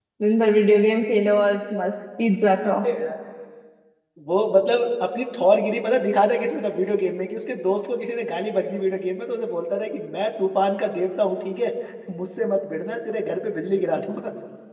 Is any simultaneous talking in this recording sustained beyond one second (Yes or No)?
No